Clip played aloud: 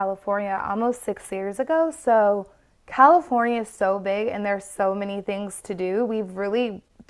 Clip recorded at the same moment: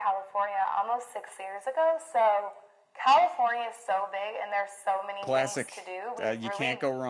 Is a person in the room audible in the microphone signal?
Yes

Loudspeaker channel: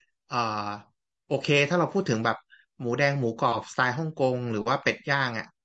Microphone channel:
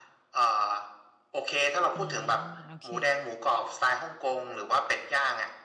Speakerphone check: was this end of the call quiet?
No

